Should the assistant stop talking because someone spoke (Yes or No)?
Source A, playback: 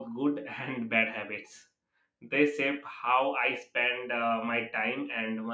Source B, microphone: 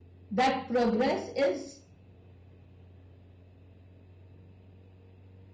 Yes